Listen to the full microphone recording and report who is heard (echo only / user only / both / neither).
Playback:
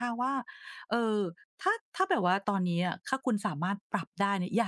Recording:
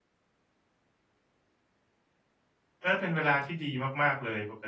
user only